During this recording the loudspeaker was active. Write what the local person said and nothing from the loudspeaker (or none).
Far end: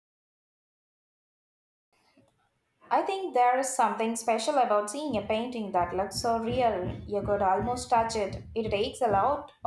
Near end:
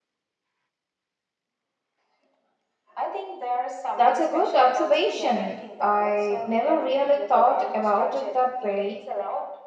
That's a good observation. I never really thought about it that way.